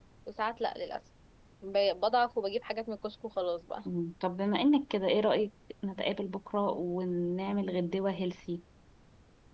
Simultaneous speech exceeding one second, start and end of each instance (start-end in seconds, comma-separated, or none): none